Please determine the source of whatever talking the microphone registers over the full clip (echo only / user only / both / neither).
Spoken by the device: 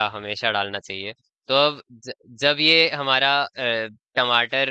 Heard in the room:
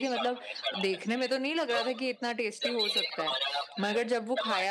both